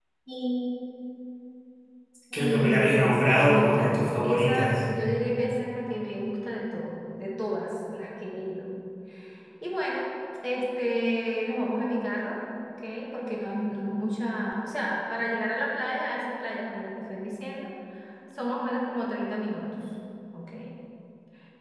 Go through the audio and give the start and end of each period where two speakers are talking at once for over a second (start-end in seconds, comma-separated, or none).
2.3-4.7